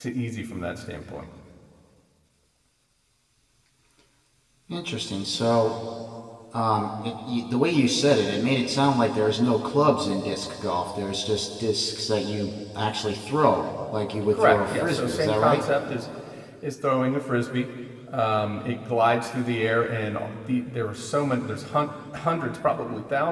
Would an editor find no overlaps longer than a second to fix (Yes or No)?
No